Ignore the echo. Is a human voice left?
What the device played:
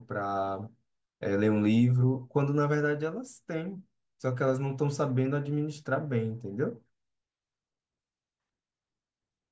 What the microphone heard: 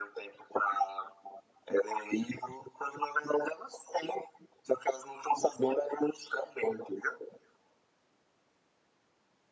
No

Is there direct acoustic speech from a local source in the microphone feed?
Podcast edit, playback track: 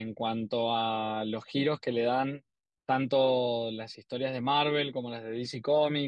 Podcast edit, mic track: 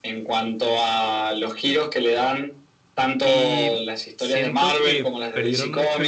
Yes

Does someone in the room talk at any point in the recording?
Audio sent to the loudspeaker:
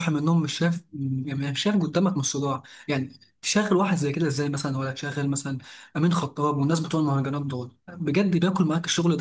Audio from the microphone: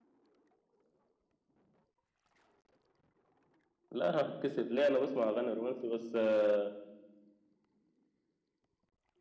Yes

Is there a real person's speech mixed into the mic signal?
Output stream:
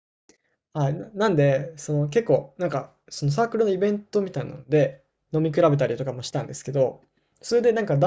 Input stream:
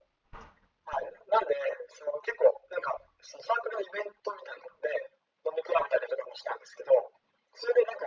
No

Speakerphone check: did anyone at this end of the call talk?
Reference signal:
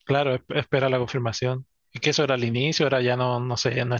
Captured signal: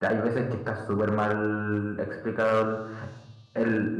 Yes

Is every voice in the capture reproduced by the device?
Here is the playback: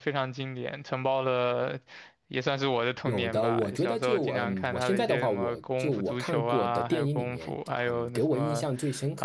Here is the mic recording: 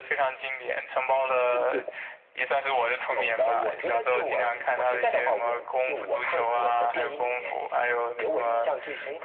No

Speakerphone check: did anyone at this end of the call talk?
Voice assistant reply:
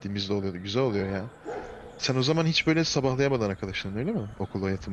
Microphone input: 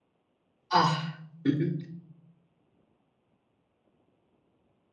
Yes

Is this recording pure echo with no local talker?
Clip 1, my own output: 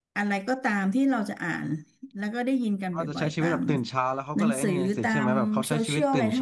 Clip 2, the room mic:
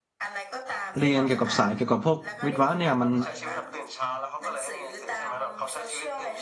No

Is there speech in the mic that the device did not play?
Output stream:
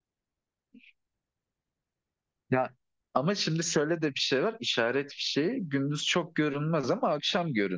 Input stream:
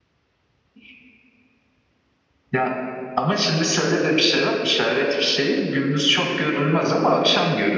No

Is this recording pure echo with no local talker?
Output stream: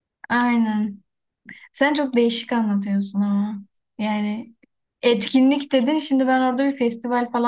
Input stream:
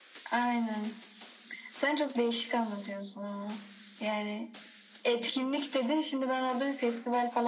Yes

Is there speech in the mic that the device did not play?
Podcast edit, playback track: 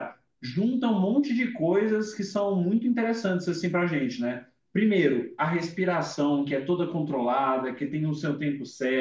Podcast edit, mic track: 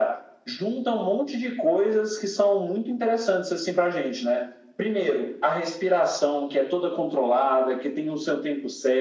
No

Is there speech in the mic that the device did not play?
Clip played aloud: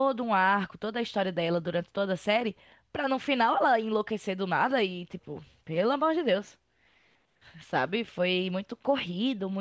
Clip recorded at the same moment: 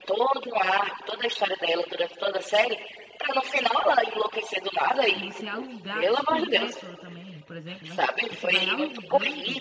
Yes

